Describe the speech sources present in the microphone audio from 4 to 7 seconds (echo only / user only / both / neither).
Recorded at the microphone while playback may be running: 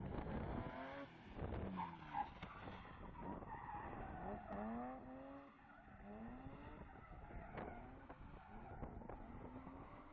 neither